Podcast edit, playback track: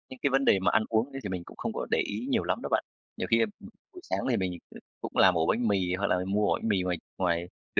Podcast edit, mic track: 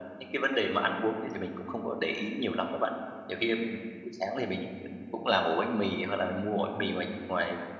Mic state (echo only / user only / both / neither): echo only